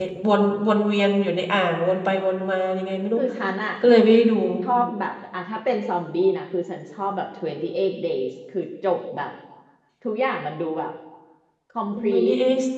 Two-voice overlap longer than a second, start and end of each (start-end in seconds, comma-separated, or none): none